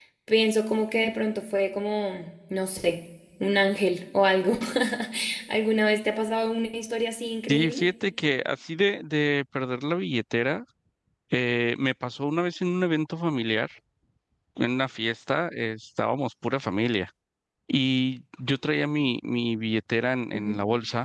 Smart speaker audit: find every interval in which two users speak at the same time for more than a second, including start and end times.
none

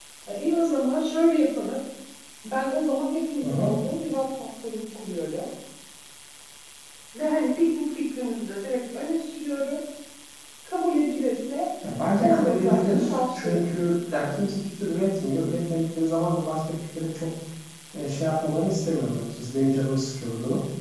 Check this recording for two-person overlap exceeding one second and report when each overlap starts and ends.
12.2-13.7

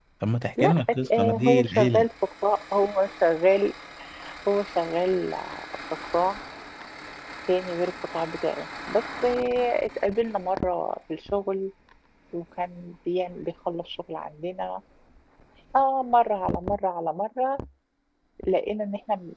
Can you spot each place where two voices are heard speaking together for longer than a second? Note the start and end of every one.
0.6-2.0

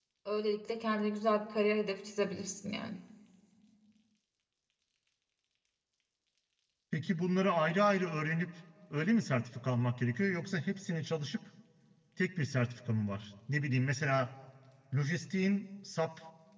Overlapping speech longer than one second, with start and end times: none

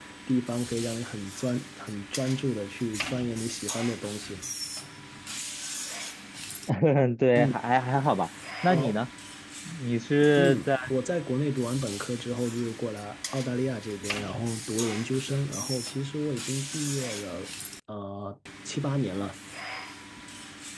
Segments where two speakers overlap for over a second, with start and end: none

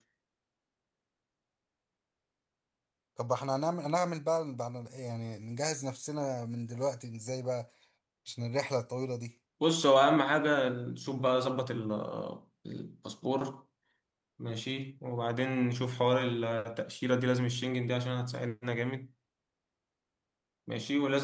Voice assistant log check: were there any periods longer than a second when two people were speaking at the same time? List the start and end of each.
none

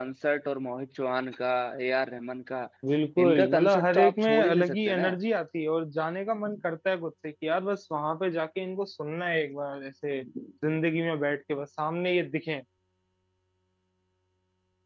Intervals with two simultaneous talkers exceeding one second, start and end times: 3.2-5.1

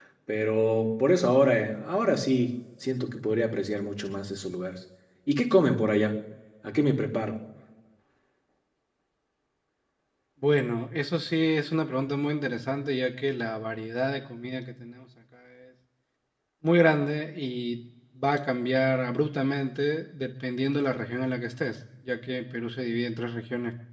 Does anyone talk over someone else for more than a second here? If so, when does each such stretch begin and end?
none

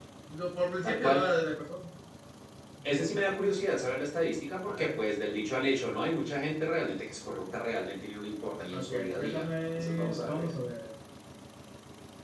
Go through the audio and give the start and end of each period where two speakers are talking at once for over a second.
8.7-10.5

